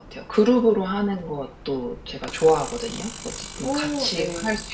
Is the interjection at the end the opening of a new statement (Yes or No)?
No